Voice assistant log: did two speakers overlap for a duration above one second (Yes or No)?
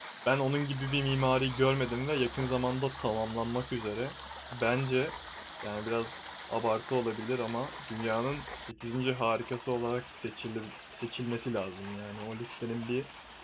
No